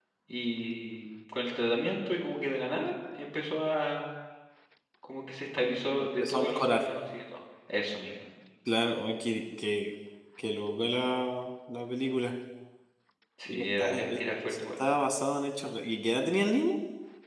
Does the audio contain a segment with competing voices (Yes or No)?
Yes